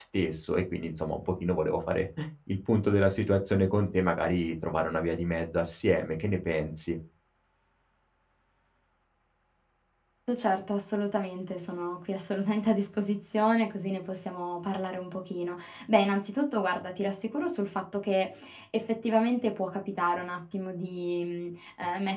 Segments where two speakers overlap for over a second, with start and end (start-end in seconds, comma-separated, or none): none